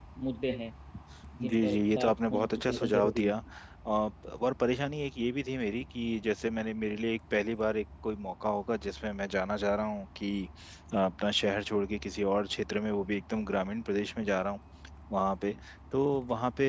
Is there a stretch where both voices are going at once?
Yes, from 1.5 s

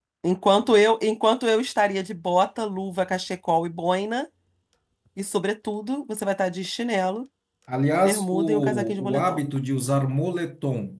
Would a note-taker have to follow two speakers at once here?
Yes, from 8.0 s

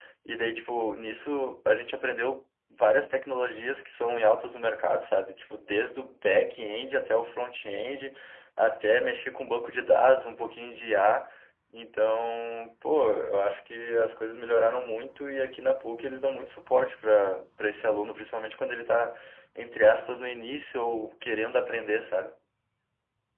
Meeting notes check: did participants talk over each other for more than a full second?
No

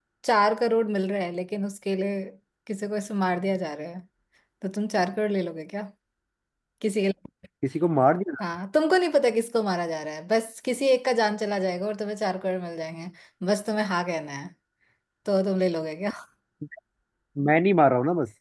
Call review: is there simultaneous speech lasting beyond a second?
No

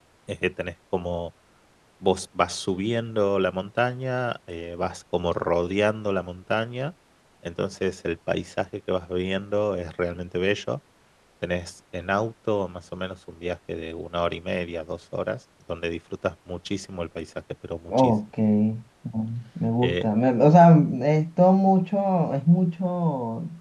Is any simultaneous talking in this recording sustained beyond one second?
No

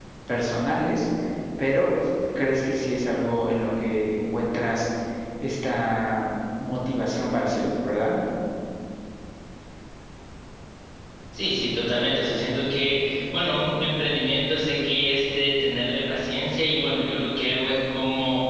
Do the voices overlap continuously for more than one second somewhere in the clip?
No

